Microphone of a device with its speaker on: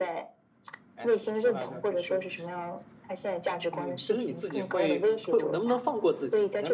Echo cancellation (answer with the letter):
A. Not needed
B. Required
B